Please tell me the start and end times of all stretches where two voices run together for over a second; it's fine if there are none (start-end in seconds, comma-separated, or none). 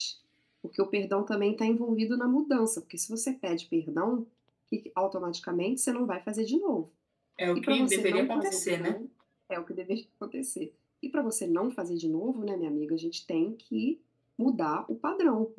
7.5-9.0